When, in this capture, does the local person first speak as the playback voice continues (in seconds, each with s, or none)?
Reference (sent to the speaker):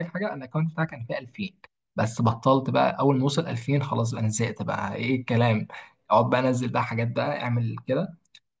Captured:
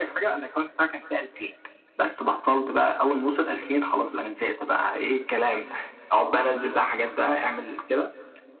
none